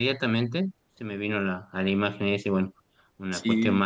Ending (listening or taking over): listening